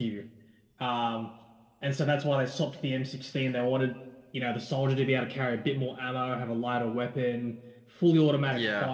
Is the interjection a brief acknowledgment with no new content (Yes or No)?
Yes